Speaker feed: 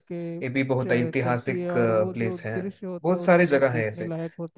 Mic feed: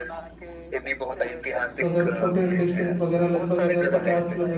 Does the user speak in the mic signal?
Yes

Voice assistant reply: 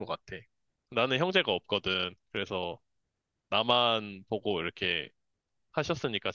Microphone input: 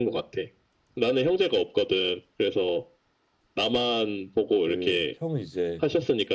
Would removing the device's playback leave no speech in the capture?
No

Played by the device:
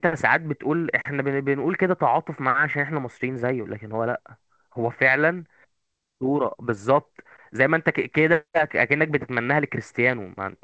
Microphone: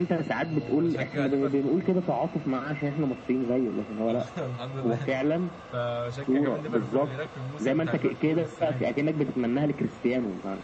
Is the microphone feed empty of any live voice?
No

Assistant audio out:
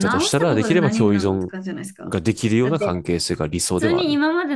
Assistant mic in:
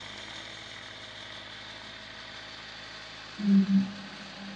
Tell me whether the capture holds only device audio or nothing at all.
No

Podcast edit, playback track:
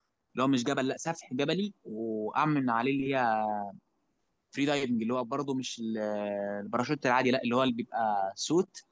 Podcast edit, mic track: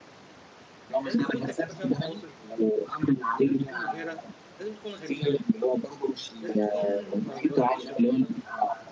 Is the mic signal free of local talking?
No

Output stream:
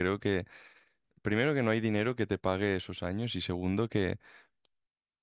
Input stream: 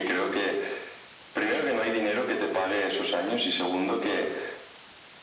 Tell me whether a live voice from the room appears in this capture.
No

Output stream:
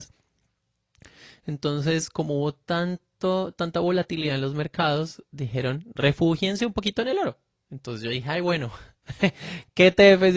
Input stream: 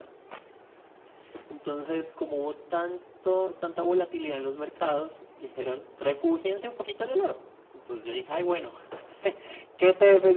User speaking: No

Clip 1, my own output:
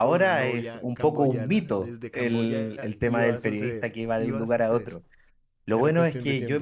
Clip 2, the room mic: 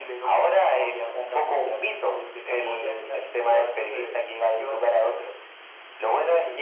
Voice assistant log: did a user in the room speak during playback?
No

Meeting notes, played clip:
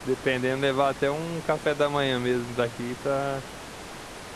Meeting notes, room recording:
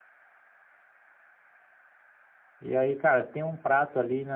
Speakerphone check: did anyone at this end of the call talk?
Yes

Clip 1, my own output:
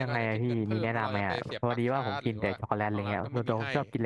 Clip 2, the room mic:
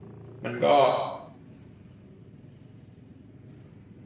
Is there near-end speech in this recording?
Yes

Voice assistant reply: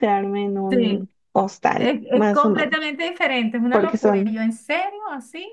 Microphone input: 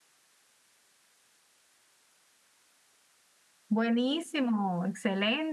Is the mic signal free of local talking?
No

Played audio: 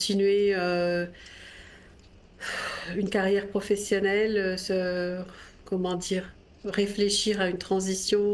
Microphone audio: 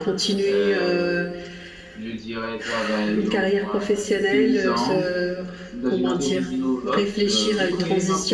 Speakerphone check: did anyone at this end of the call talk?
Yes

